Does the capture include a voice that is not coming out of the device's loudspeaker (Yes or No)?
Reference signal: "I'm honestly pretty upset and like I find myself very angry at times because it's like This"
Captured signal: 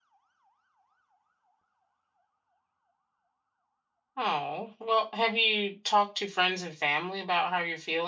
Yes